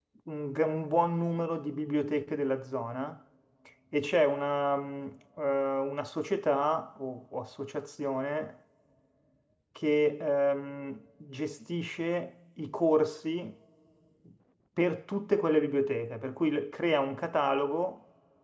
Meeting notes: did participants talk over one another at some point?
No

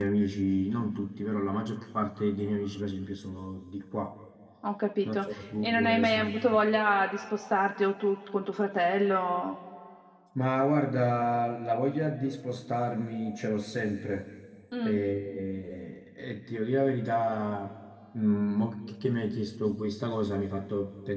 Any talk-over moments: Yes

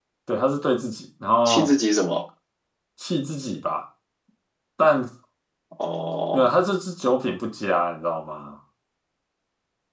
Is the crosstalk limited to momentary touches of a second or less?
Yes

